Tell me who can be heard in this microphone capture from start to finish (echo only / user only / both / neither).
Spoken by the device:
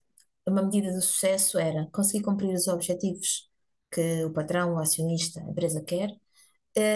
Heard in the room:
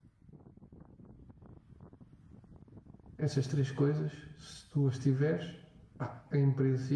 user only